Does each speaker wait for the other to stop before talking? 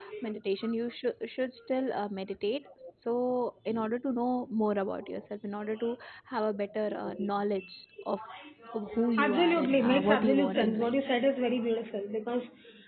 No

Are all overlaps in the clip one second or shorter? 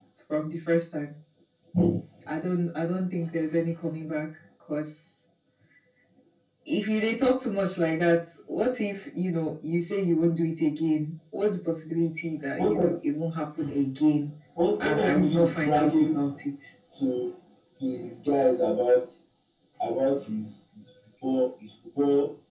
No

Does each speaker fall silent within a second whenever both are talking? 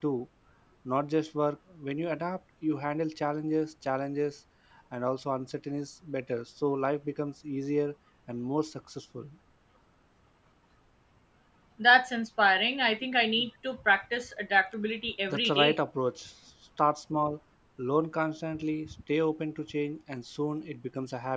Yes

